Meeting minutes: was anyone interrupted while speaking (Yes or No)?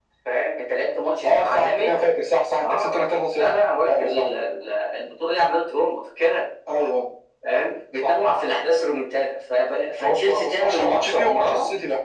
Yes